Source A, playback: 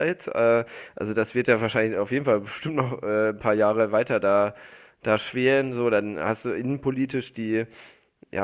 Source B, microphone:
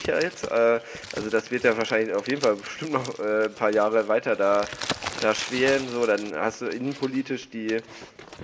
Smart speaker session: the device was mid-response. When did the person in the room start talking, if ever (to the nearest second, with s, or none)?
none